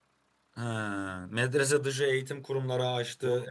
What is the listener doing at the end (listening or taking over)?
taking over